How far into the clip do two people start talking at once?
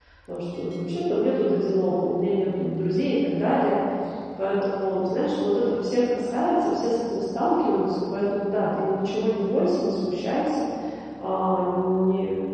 none

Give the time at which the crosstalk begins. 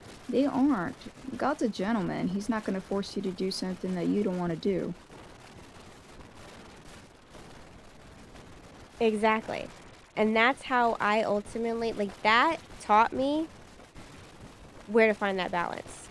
none

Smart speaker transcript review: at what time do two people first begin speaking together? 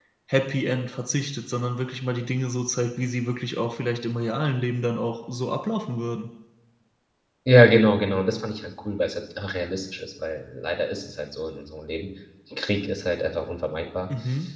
none

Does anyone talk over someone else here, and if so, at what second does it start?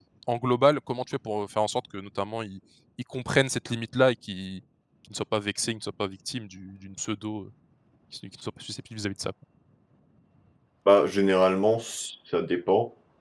none

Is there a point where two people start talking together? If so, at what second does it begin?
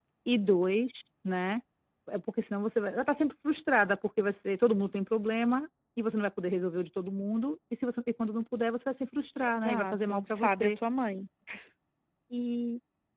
9.4 s

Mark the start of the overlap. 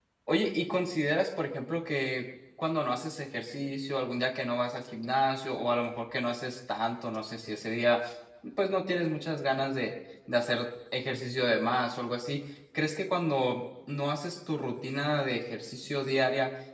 none

